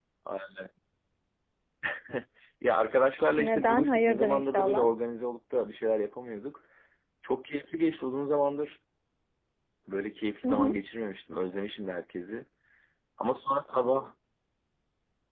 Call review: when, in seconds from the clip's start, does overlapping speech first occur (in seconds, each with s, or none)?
3.4 s